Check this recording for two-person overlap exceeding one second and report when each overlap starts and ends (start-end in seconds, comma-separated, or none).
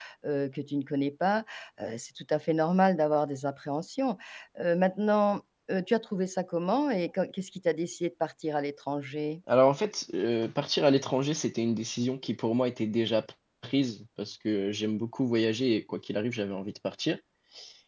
none